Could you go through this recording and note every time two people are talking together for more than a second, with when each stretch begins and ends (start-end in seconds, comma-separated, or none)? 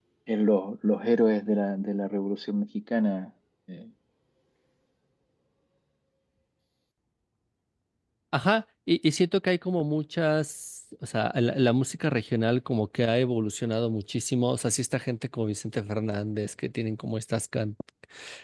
none